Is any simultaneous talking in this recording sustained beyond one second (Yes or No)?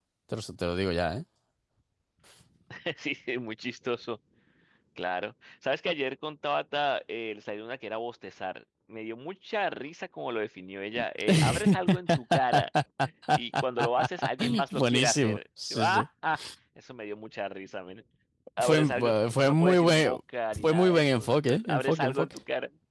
Yes